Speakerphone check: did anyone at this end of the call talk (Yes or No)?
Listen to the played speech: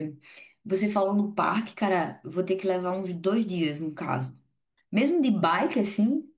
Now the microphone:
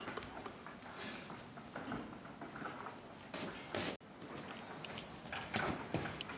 No